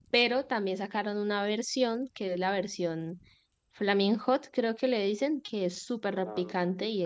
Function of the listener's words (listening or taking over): taking over